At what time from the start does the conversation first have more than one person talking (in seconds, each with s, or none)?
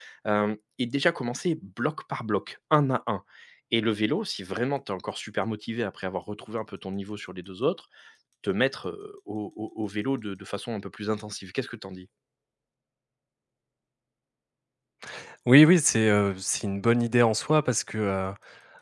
none